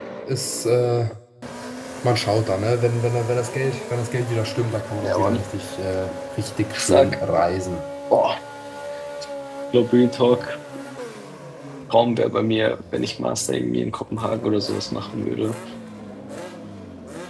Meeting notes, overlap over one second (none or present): none